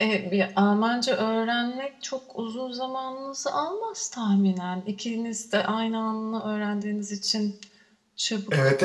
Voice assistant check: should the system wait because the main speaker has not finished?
No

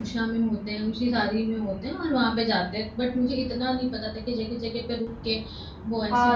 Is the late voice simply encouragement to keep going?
No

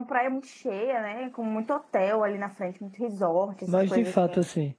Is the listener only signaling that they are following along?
No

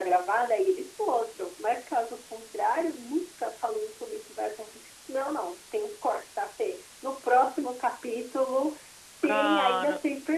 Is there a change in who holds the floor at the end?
No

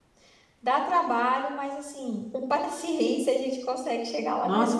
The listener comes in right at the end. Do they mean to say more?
Yes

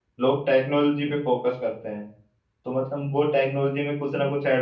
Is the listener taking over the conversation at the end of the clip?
No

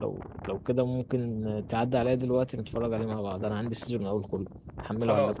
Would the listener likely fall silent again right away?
No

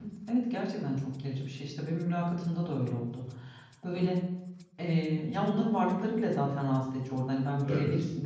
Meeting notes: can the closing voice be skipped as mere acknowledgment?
Yes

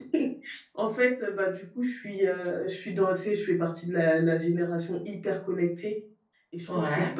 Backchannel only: Yes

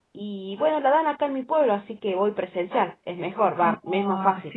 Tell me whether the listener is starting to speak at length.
Yes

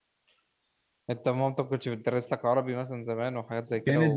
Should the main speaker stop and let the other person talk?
Yes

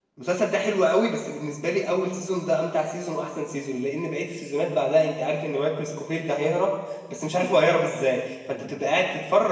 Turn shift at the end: No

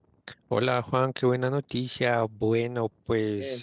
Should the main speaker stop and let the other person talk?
No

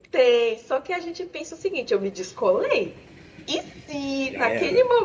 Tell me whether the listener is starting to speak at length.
No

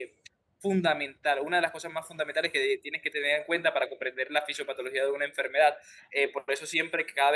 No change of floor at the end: Yes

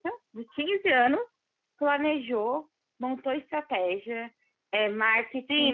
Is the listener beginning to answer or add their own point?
Yes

